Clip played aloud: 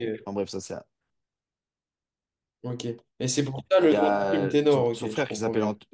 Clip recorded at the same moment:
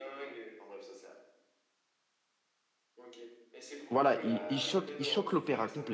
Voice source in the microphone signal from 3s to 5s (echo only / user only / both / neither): both